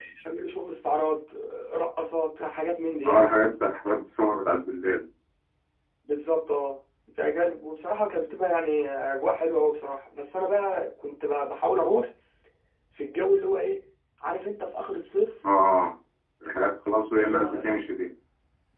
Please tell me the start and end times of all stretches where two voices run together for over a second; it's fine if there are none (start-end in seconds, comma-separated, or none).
none